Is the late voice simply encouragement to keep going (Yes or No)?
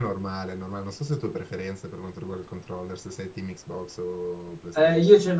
No